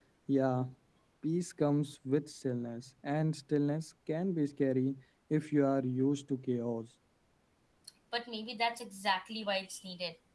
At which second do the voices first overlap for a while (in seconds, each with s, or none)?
none